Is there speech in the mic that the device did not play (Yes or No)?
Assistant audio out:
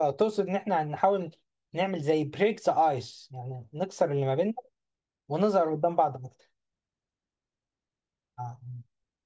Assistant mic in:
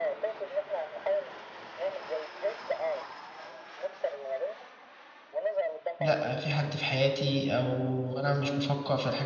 Yes